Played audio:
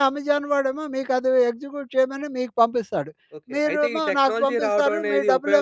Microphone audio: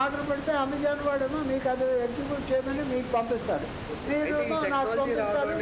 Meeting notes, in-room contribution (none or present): none